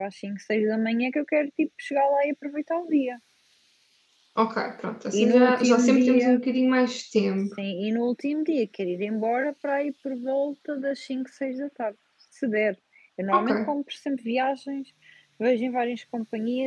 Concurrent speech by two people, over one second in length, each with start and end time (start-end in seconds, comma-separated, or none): 5.1-6.4